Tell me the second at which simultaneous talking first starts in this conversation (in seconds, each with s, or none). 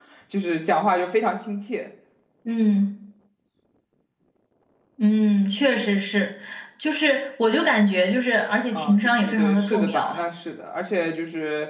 8.7 s